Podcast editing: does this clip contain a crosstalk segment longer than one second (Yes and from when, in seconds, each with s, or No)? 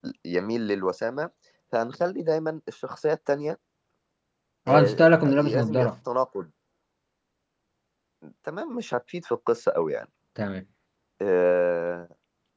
Yes, from 4.7 s